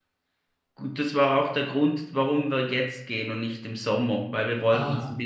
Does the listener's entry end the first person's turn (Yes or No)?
No